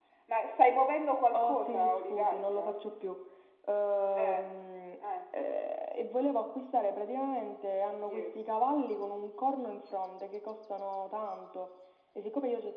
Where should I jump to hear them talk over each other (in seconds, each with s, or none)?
1.3 s